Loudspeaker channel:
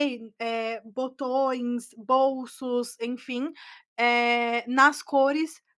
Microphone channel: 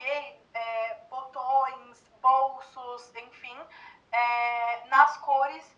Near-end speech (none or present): none